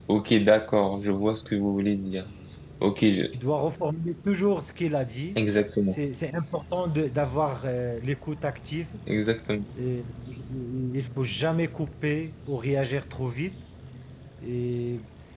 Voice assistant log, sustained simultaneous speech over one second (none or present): none